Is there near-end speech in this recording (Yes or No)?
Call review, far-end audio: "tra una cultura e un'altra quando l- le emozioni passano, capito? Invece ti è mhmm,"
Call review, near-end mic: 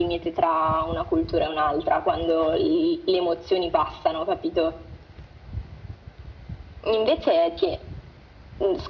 No